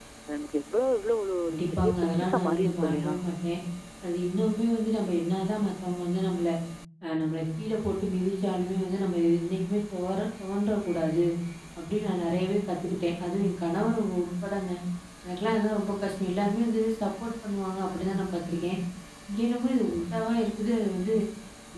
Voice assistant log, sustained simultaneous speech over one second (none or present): present